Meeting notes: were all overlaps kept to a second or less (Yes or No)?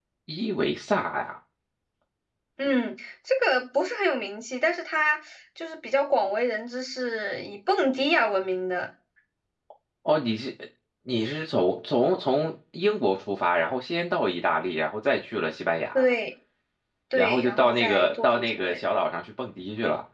No